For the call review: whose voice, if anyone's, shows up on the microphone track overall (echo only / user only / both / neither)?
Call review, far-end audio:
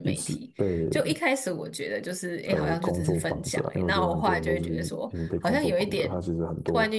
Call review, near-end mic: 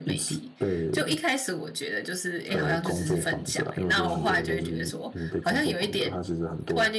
both